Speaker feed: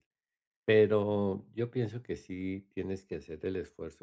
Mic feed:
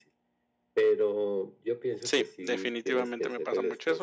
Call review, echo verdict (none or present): present